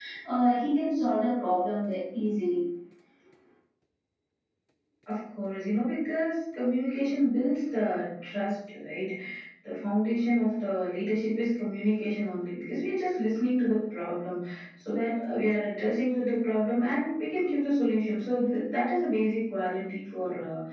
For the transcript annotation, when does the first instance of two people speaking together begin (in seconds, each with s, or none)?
none